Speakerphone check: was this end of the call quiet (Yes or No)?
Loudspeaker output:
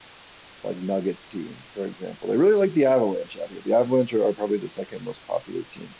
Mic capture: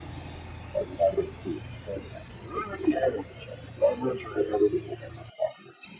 Yes